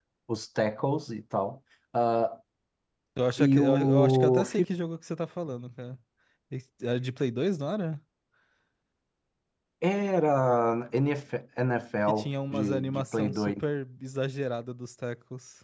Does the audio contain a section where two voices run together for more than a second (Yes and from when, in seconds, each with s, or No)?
Yes, from 3.4 s